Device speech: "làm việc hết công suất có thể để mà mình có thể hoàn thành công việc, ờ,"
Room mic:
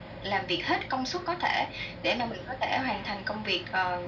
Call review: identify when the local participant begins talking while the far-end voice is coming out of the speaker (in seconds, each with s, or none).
none